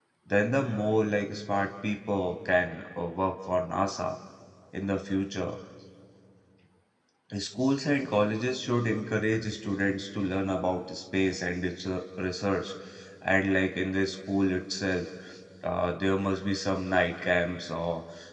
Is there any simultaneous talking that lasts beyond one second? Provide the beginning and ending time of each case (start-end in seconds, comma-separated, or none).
none